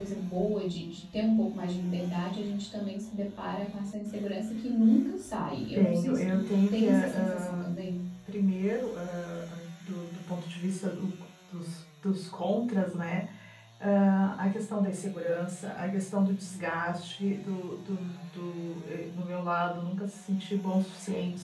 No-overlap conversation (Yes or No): No